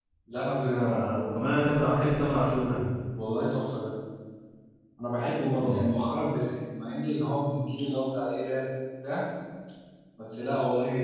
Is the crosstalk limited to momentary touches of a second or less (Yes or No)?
Yes